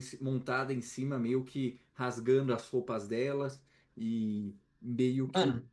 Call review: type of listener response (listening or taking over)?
listening